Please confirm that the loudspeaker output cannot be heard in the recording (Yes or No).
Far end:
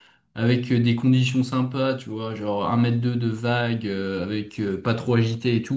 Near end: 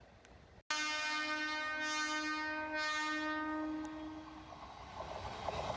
Yes